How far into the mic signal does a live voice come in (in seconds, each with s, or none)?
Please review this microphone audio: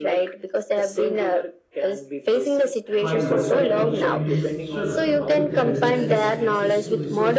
3.0 s